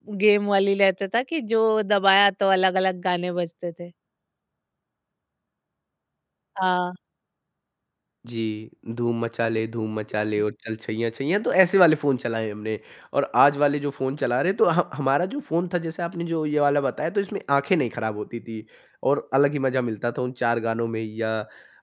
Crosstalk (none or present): none